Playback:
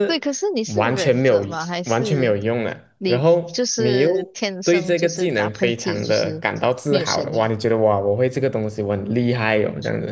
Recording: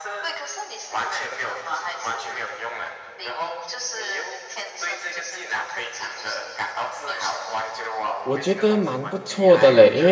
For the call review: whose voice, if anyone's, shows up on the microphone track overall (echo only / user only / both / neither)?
both